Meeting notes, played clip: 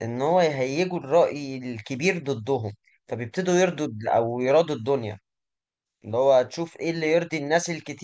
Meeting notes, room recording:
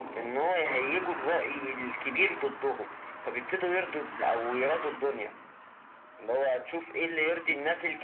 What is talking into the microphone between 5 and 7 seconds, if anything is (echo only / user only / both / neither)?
echo only